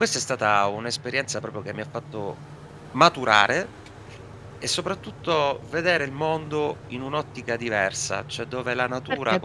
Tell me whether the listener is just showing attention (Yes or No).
No